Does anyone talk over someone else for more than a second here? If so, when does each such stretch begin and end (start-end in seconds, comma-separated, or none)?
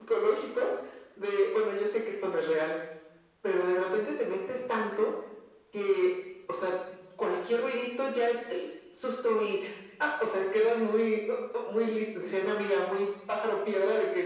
none